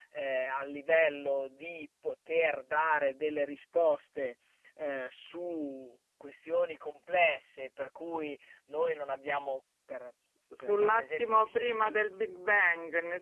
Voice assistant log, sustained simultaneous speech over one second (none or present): present